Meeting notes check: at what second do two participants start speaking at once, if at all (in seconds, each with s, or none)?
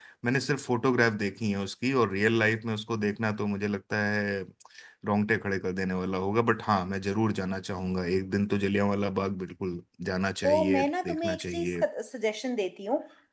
10.4 s